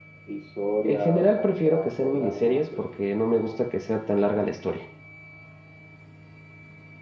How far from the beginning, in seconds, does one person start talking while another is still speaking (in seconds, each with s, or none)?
0.8 s